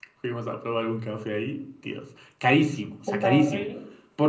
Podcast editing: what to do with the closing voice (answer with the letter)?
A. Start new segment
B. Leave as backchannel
B